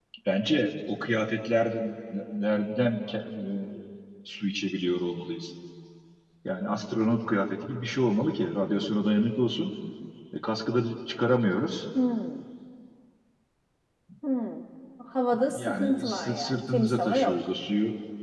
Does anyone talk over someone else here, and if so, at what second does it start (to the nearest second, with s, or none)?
16 s